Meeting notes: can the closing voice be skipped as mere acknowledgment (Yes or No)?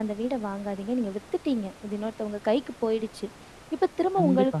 Yes